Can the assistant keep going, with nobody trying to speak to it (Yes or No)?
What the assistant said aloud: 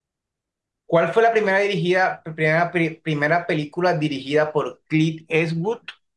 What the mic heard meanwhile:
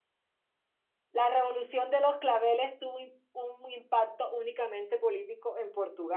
No